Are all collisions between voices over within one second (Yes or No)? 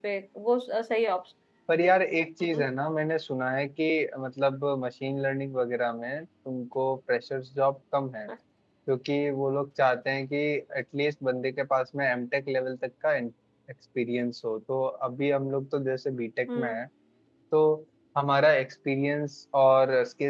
Yes